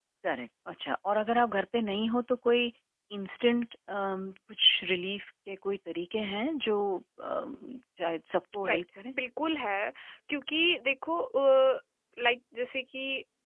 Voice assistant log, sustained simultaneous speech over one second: none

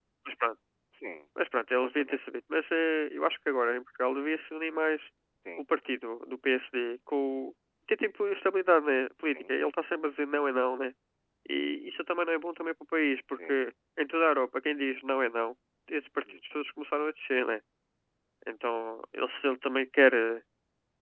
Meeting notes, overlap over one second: none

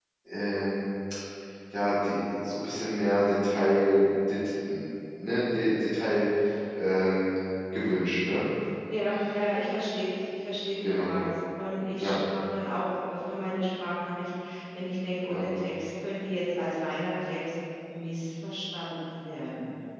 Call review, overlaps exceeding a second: none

